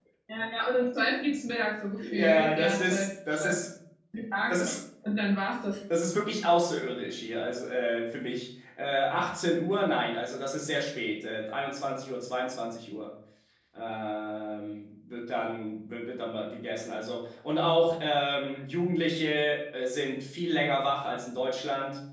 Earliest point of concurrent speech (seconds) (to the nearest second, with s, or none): 2 s